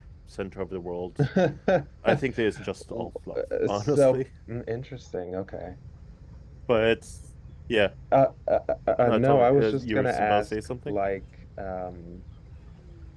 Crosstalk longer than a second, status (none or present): present